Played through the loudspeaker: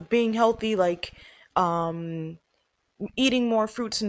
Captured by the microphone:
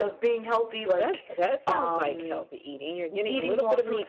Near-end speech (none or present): present